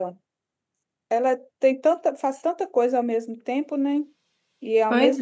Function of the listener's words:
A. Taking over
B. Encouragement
B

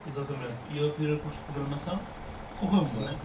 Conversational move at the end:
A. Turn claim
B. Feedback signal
B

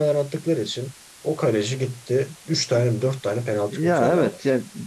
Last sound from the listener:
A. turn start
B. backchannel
A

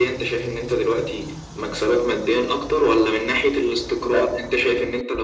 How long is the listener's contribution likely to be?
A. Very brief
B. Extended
A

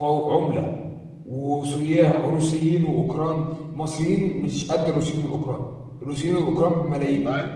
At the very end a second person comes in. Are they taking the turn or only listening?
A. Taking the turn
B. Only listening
B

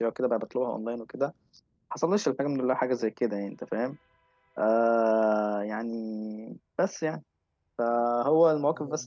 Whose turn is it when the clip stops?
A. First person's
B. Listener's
A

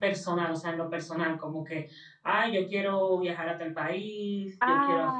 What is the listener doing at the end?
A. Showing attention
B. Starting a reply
B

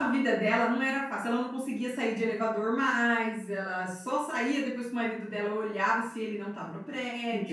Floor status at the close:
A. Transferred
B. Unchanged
A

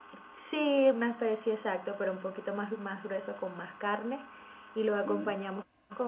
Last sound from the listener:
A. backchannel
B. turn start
A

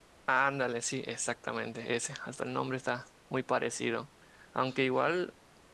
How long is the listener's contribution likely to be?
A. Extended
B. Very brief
B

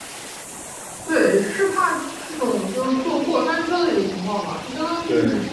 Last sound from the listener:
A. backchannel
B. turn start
A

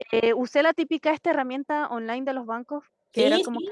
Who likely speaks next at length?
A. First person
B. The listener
A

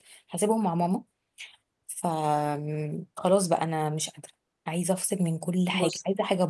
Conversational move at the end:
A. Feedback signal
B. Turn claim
A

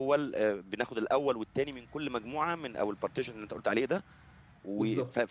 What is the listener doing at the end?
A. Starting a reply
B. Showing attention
B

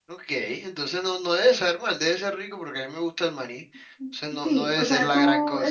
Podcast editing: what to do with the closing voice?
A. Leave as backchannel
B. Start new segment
B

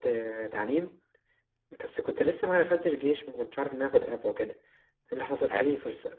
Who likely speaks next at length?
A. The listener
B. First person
B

